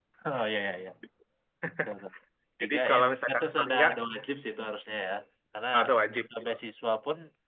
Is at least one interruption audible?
Yes, from 2.6 s

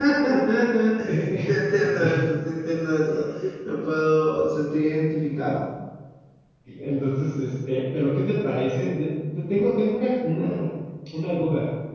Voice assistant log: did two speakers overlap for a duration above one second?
No

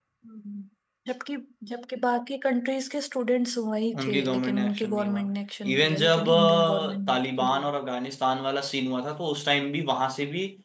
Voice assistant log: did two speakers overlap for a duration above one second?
Yes, from 3.9 s

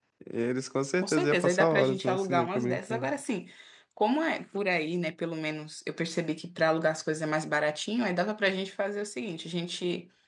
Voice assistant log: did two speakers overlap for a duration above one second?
Yes, from 1.0 s

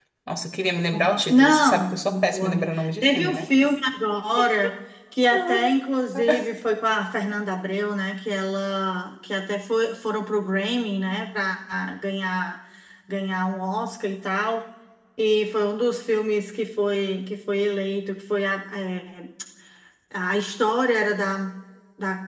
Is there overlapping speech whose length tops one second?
Yes, from 0.9 s

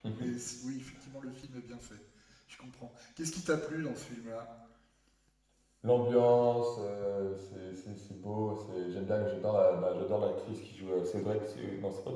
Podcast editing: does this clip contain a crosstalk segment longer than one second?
No

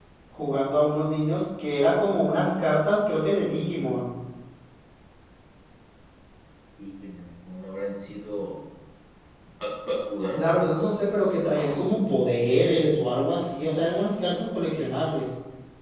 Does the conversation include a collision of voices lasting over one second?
No

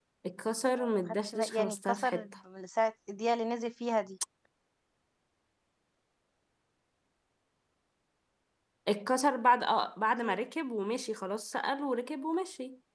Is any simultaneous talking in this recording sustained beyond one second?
Yes, from 0.8 s

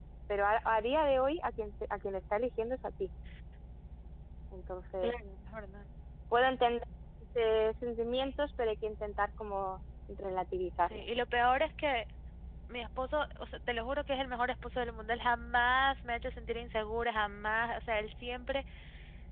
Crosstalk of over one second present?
No

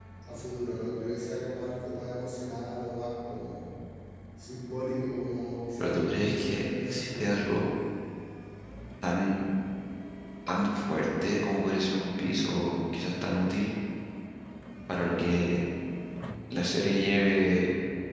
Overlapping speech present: Yes, from 5.8 s

